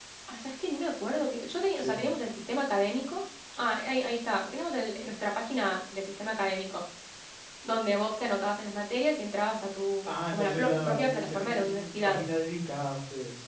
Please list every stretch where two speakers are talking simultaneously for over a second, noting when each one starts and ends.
10.1-12.2

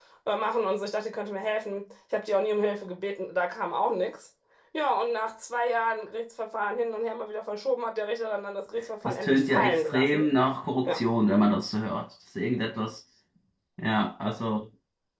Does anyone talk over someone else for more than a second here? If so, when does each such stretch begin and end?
9.0-10.2

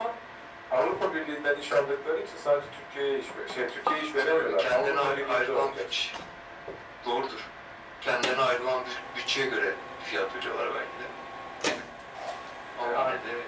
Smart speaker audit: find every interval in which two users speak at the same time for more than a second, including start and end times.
4.3-5.8

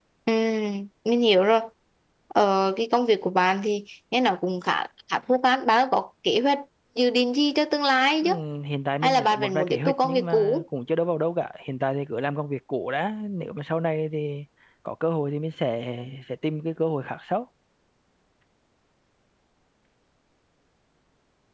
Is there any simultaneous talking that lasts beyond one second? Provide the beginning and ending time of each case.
9.0-10.6

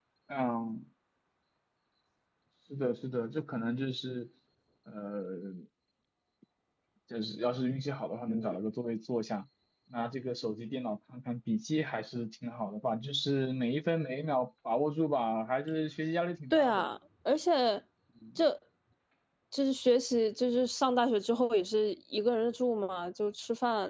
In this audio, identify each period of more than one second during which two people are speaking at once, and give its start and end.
none

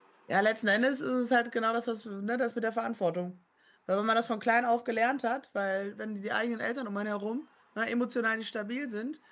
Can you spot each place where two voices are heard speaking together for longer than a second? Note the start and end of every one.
none

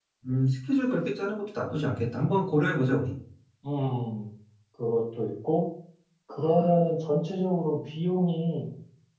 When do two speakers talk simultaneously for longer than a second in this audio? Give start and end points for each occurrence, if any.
none

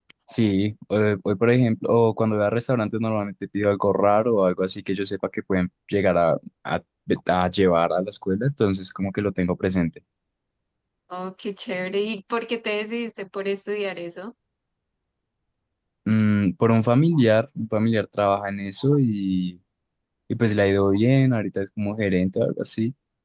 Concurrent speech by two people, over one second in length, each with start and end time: none

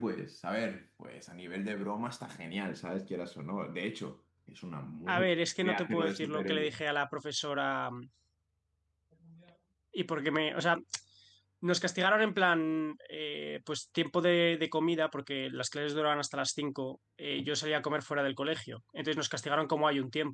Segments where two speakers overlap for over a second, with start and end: 5.1-6.7

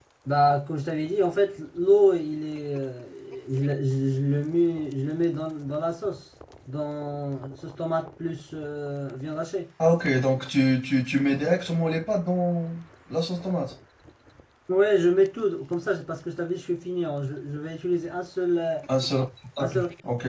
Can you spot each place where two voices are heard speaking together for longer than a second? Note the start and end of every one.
none

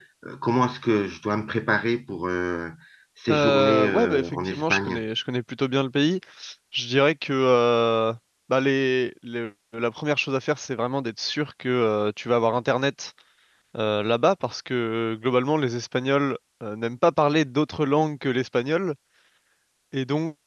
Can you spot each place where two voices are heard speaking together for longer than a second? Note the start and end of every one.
3.3-5.0

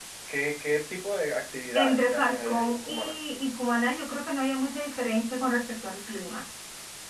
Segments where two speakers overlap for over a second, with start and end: 1.8-3.2

